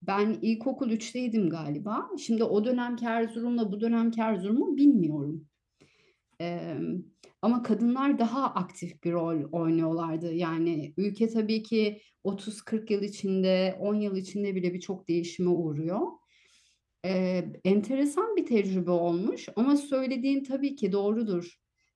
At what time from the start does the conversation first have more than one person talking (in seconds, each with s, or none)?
none